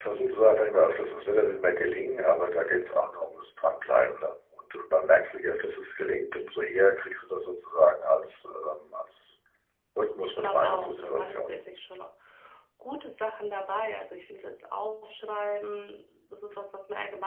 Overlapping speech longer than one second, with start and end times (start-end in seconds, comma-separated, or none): 10.2-11.6